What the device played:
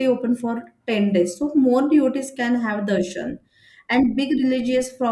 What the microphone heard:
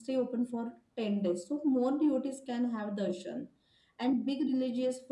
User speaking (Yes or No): No